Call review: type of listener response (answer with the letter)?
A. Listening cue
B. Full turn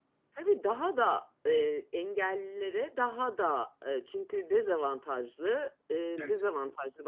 A